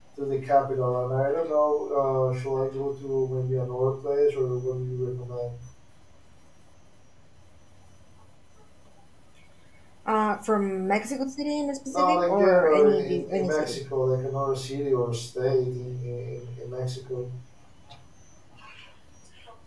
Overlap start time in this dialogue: 11.9 s

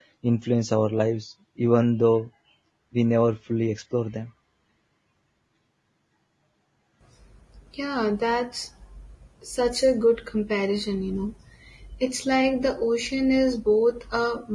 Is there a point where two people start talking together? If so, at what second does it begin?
none

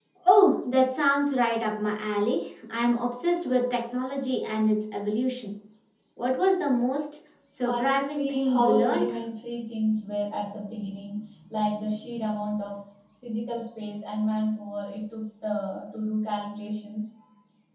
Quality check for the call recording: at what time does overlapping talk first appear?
7.6 s

